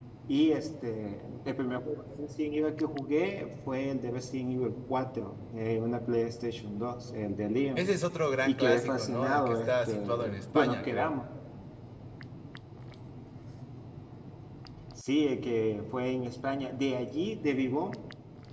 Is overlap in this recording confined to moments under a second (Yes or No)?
No